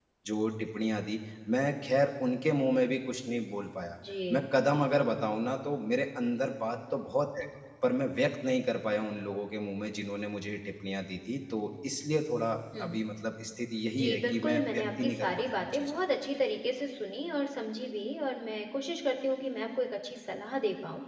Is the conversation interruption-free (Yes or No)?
No